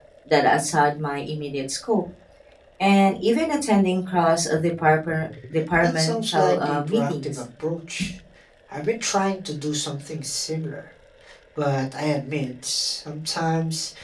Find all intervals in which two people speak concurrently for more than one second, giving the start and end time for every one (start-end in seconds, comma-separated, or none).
5.8-7.4